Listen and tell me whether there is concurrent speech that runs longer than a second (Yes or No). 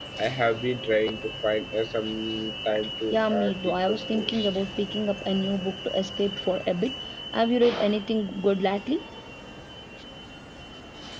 Yes